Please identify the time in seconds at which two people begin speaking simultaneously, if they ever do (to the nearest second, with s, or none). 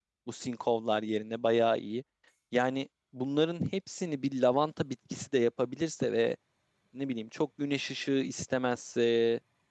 none